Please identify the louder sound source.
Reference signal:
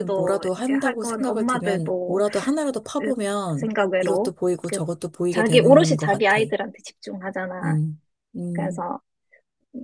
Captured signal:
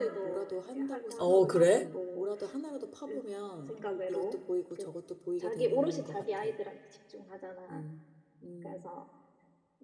user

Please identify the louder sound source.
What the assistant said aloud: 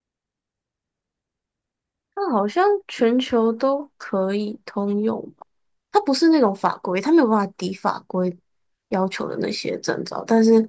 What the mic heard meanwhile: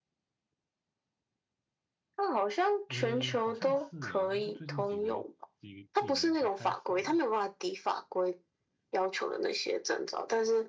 echo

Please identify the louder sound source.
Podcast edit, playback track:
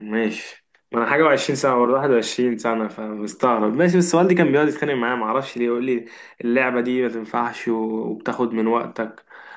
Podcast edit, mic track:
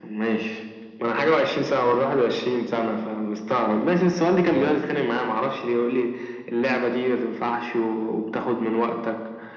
echo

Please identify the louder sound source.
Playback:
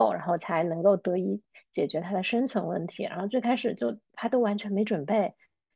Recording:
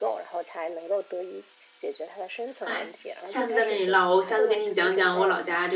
user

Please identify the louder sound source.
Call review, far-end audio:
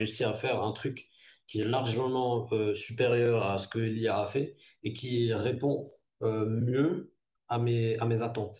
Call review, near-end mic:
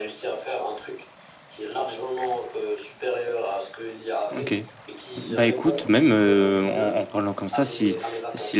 user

